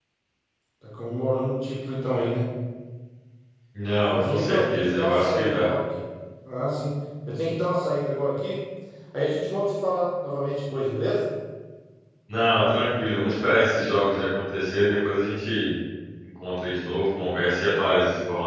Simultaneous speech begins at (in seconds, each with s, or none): 4.1 s